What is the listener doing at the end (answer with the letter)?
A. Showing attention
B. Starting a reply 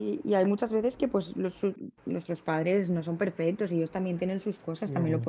A